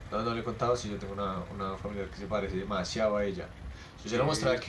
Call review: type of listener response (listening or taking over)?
listening